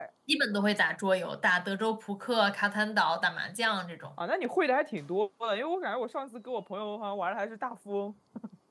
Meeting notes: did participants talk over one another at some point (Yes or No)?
No